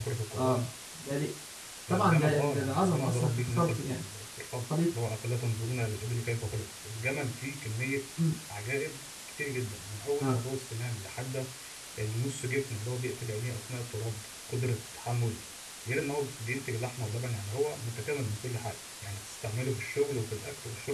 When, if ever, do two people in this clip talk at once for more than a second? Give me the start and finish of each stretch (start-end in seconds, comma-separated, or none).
1.9-4.0